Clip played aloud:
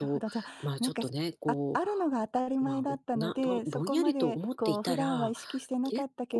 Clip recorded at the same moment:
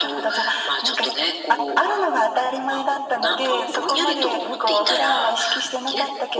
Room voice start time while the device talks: none

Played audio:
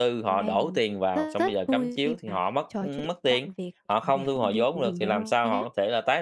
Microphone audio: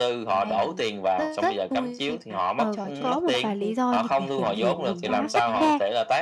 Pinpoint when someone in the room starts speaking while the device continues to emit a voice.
2.5 s

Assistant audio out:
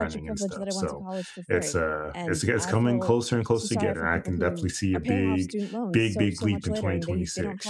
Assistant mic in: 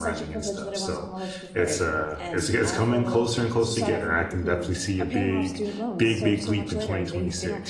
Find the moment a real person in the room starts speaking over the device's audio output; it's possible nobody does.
none

